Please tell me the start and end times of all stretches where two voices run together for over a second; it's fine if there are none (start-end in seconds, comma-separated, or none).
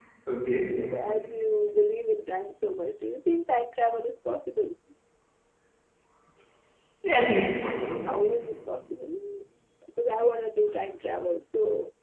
none